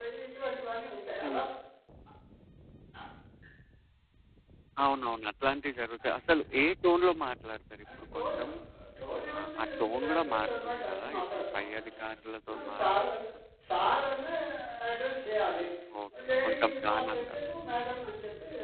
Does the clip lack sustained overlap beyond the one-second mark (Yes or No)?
No